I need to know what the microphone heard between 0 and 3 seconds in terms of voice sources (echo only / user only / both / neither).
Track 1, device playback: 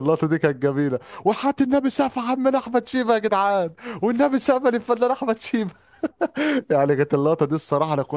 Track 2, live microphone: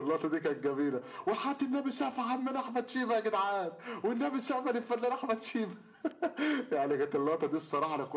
echo only